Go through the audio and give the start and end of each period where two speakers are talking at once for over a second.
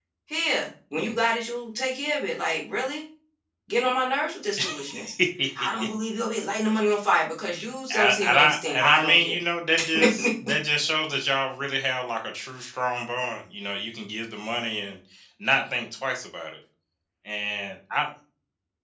7.9-9.4

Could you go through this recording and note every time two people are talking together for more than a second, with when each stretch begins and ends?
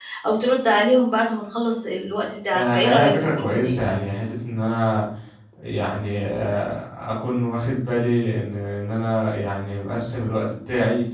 2.5-3.8

